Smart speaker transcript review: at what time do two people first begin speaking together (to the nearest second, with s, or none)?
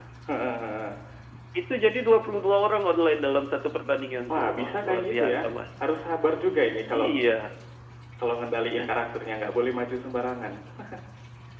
4 s